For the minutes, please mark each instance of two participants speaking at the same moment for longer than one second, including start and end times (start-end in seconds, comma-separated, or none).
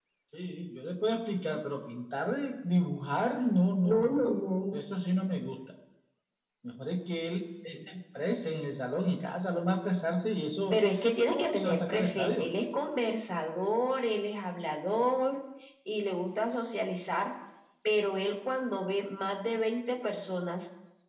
11.3-12.5